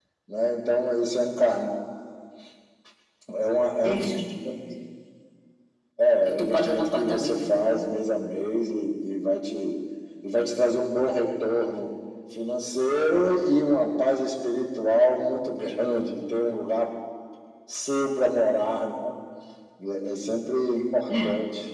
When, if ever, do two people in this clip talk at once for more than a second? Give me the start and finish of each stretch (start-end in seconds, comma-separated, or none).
6.2-7.8